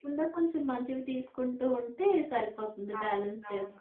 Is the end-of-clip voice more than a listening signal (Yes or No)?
Yes